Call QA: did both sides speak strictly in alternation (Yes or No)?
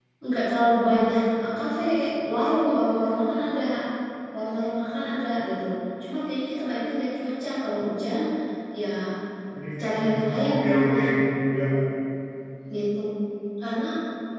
No